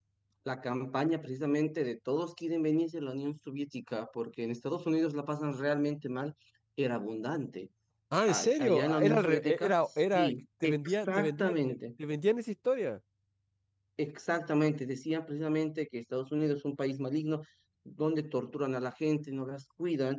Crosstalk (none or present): present